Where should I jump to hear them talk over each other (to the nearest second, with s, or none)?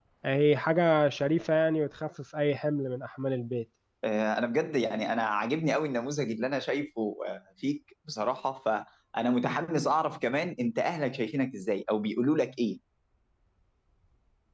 none